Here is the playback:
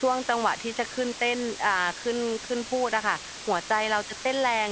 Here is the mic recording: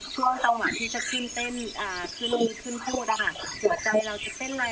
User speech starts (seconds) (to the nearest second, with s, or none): none